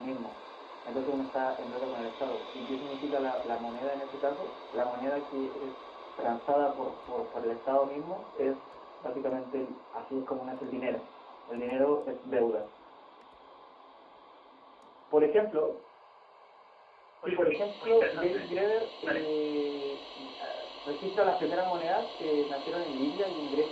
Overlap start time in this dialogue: 17 s

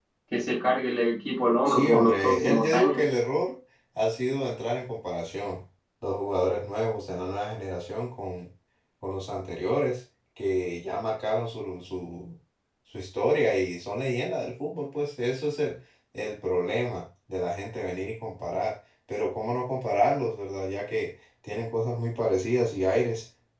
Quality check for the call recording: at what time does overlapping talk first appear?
2 s

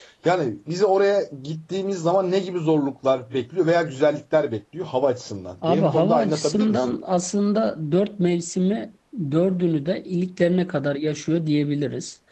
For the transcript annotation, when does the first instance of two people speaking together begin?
6 s

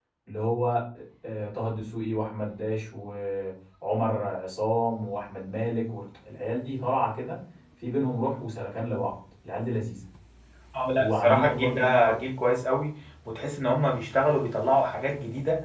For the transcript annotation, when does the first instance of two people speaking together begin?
11 s

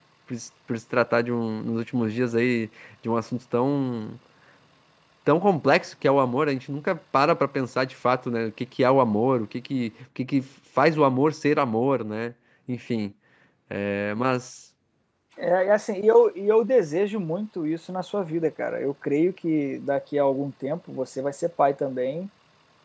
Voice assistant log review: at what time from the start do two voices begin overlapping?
none

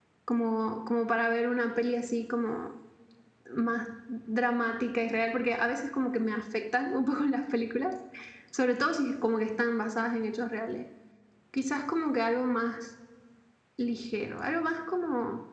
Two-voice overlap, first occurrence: none

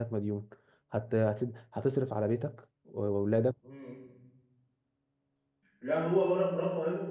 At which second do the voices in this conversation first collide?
none

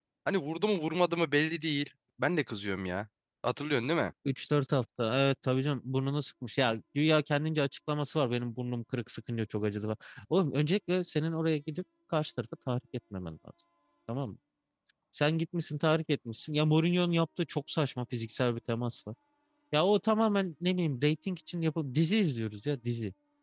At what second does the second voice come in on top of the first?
none

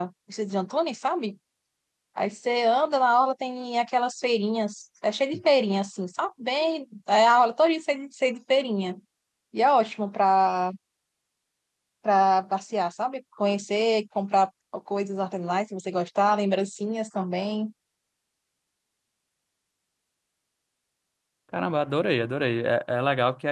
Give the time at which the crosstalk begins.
none

